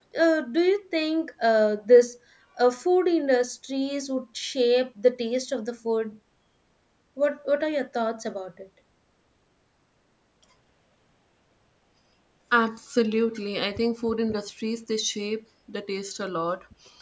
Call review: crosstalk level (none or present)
none